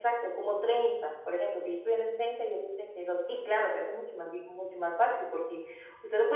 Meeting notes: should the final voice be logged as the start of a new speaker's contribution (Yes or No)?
No